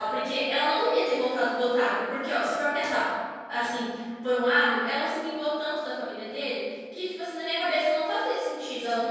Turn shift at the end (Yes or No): Yes